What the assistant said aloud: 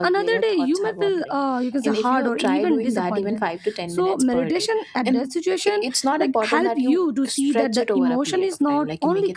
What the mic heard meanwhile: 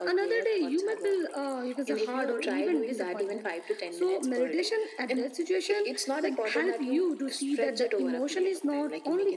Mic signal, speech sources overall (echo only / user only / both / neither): echo only